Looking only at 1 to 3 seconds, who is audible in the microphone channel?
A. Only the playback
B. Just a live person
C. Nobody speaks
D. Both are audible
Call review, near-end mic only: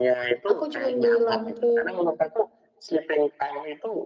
D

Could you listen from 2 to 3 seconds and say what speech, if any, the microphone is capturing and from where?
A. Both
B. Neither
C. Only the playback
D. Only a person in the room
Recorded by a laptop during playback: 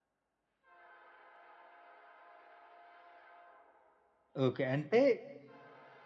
B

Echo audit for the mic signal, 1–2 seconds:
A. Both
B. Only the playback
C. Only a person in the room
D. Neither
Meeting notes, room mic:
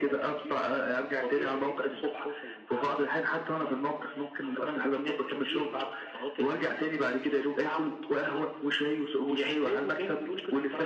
B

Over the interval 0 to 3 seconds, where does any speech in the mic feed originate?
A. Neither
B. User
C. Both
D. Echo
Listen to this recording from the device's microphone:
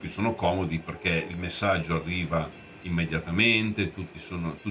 B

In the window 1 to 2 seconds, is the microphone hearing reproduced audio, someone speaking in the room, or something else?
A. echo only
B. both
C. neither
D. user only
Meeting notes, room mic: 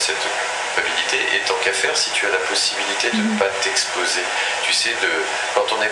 A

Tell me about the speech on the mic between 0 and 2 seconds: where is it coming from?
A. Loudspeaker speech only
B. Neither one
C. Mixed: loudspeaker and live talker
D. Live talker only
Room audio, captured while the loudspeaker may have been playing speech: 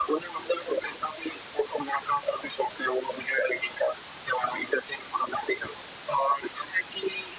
A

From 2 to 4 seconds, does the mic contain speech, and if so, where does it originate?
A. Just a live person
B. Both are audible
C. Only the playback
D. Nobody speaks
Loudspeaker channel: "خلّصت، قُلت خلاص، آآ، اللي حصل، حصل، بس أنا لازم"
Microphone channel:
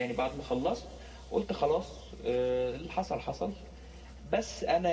C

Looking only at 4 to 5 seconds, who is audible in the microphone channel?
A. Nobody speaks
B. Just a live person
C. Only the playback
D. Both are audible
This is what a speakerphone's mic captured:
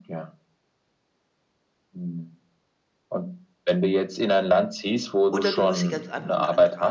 C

